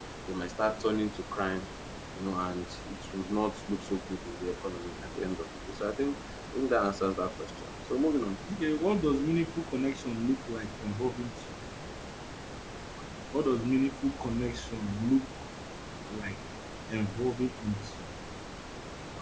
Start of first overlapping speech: none

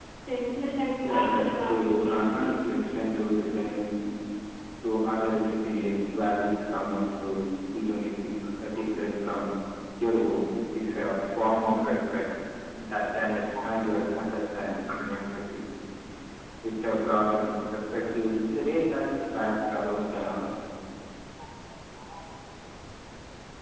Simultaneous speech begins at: 1.0 s

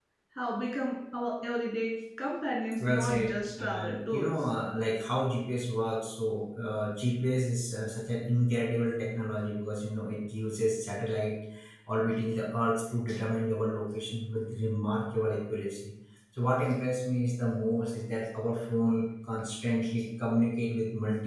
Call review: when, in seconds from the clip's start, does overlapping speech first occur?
2.8 s

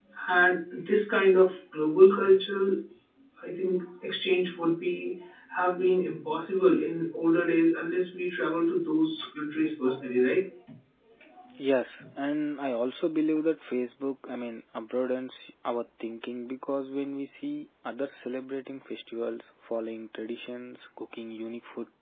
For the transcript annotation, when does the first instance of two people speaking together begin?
none

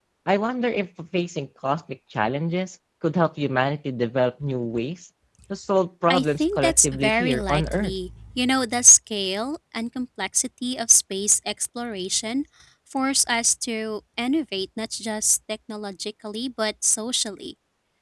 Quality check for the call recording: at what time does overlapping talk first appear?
6.1 s

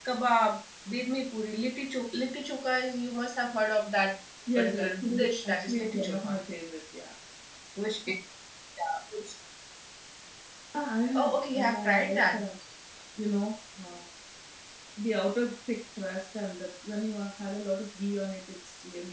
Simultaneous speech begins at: 4.6 s

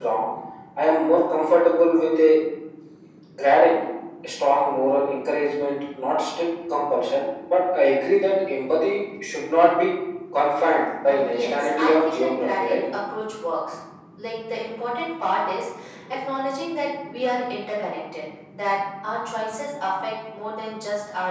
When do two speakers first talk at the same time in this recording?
11.1 s

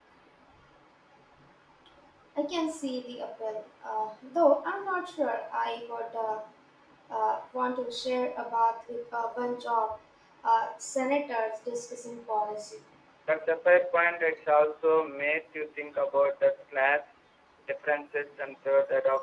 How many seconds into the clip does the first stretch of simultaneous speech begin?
none

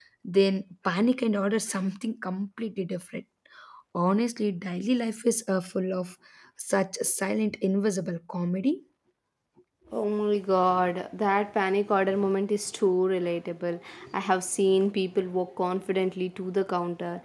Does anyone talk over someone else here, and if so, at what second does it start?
none

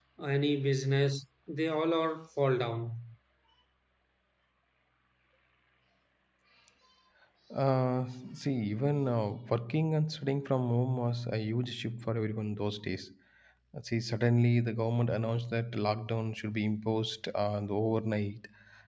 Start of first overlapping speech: none

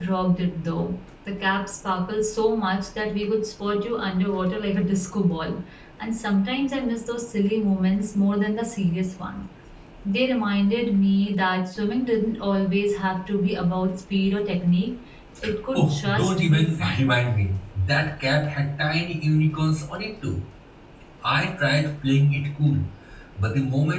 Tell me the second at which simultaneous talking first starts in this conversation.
15.7 s

